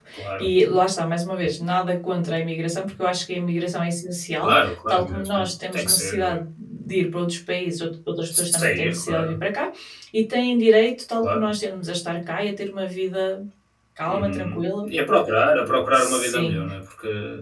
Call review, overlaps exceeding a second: present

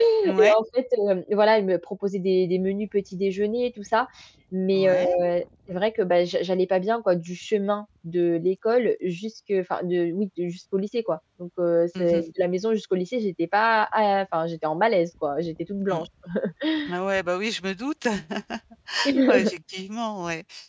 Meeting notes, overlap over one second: none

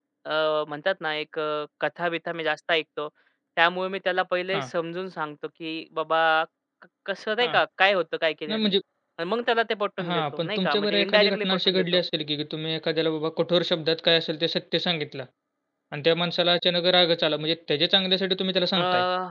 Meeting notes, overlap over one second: present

